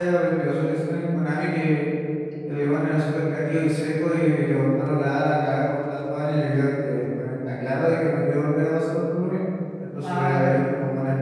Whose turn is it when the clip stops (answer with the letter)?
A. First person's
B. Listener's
A